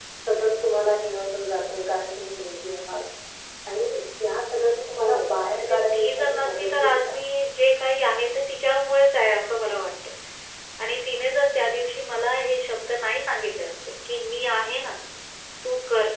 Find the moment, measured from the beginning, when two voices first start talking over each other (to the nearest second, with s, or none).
5 s